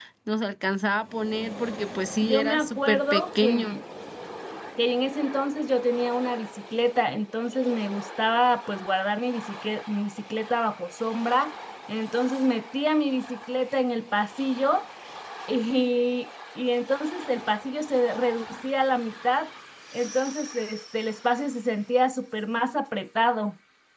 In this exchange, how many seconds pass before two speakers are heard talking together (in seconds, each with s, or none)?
2.2 s